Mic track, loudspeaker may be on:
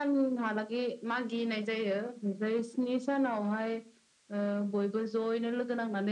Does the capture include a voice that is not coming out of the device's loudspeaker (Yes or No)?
No